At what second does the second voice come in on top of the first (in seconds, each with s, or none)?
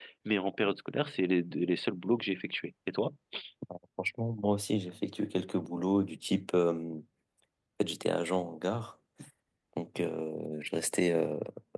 none